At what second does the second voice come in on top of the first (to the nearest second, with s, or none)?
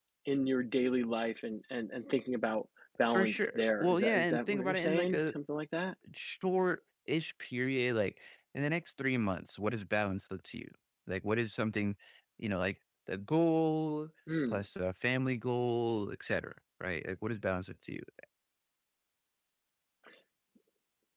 3 s